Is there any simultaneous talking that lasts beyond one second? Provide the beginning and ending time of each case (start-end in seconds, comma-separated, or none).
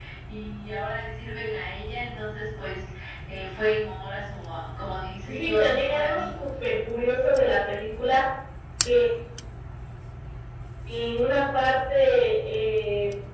5.2-6.5